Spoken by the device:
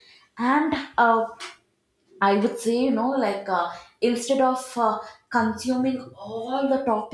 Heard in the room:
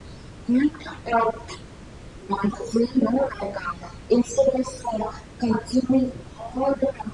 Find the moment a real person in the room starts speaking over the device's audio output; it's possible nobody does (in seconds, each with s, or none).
none